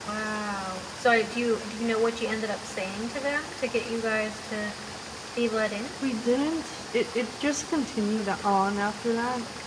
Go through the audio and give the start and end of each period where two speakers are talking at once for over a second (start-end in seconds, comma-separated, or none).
none